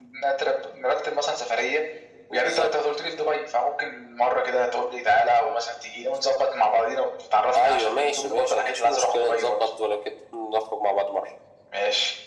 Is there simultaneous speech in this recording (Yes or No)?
Yes